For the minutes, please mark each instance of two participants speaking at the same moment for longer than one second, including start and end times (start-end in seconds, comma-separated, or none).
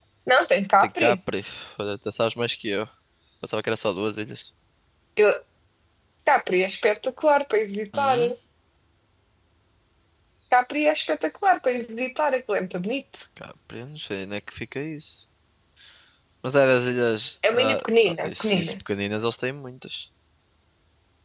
17.5-18.7